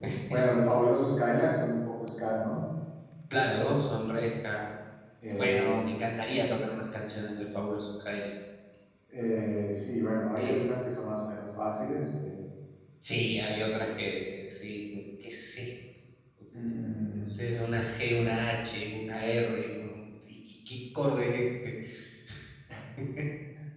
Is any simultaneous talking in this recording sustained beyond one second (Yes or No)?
No